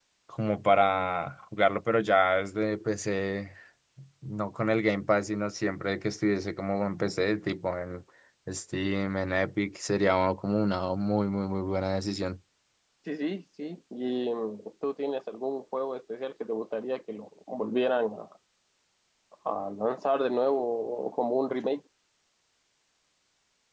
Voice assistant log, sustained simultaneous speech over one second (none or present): none